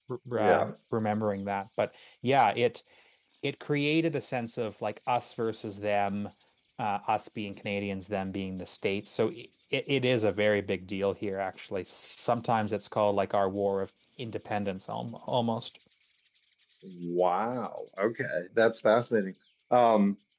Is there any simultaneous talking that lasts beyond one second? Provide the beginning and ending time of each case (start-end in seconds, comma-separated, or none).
none